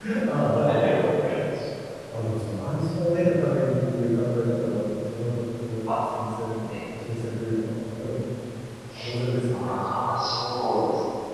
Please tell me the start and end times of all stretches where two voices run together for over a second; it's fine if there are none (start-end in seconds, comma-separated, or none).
none